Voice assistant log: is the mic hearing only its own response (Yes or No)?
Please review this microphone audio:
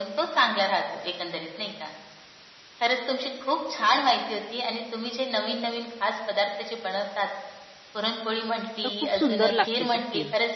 No